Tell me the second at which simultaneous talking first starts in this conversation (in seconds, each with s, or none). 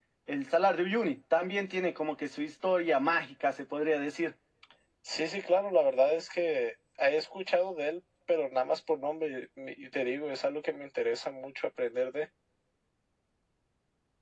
none